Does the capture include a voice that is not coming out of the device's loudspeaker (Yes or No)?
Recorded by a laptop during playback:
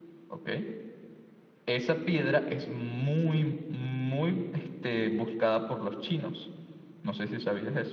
No